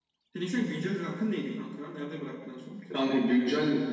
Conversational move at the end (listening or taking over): taking over